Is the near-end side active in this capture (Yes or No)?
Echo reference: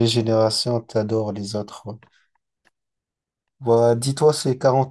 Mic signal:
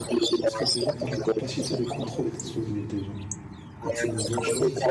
Yes